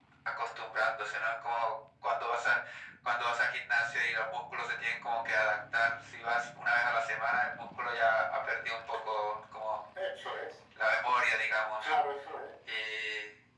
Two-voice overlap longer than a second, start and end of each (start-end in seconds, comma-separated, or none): none